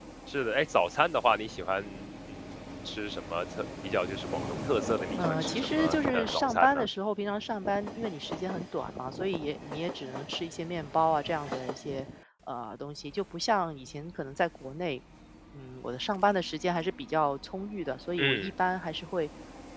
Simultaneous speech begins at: 5.2 s

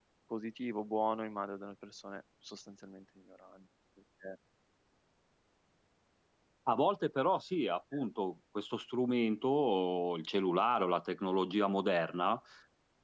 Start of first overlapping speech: none

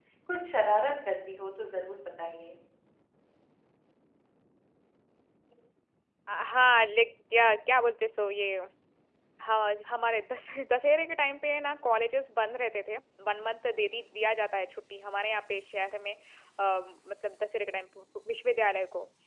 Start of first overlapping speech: none

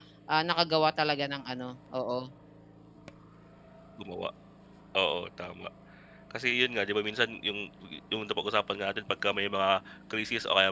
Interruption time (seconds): none

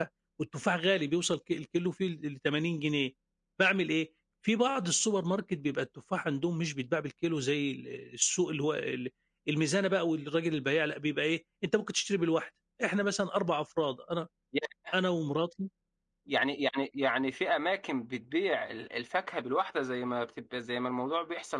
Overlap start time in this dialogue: none

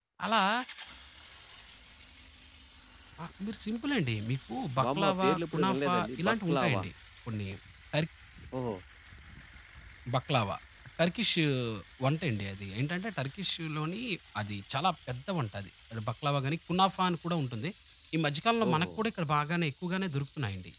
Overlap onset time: 4.8 s

